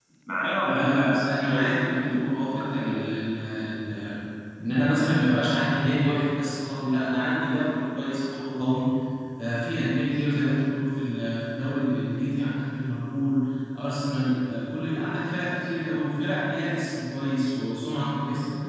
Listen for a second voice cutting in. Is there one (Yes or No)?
Yes